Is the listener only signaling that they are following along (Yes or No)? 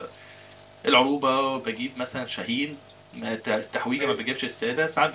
Yes